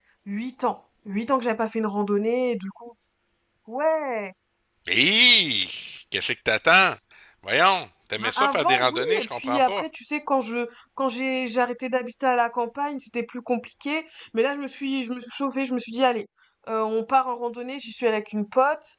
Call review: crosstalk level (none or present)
present